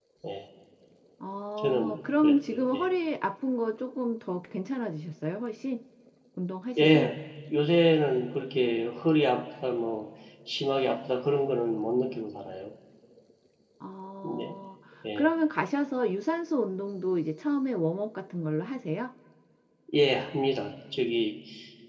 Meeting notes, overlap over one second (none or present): present